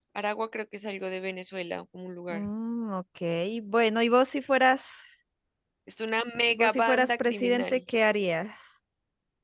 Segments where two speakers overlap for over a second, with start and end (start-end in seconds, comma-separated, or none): 6.5-7.8